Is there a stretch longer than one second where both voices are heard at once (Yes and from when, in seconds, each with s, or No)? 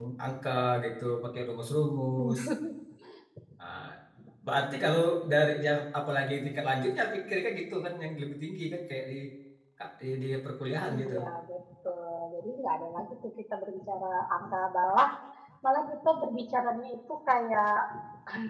No